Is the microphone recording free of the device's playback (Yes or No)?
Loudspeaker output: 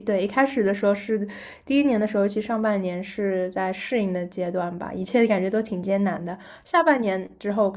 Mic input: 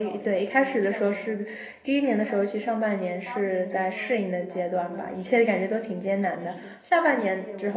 No